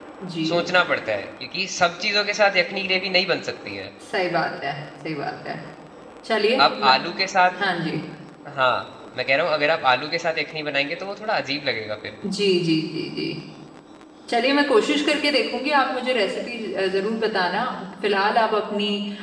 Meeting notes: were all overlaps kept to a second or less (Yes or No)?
Yes